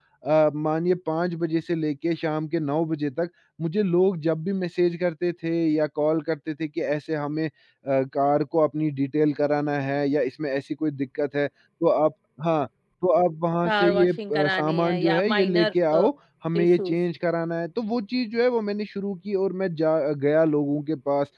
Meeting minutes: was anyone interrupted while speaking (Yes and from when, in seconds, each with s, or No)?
Yes, from 13.6 s